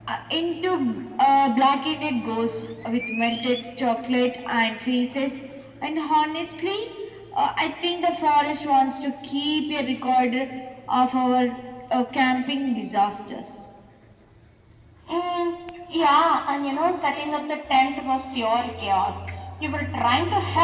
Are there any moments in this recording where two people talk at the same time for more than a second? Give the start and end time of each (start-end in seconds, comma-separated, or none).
none